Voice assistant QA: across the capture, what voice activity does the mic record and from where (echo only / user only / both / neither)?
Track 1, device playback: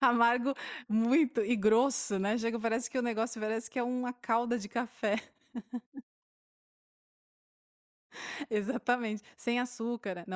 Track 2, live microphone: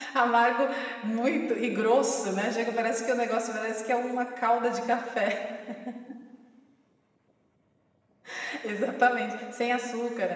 echo only